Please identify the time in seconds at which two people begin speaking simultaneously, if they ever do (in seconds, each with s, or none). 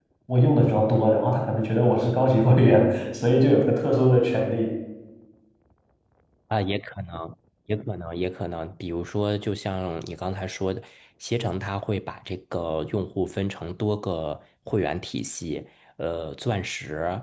none